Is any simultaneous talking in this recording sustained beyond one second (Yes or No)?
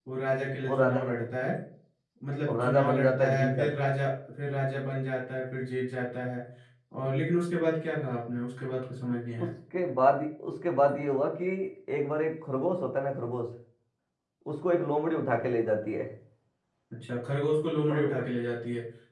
Yes